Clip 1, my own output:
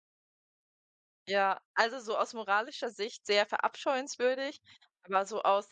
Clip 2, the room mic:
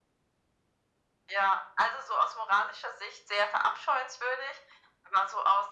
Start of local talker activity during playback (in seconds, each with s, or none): none